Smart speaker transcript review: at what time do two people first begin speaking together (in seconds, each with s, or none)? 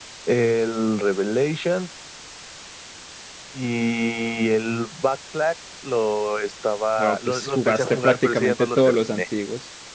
7.0 s